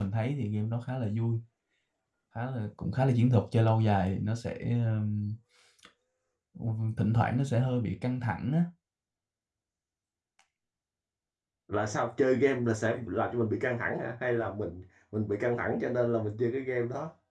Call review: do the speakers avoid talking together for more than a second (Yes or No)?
Yes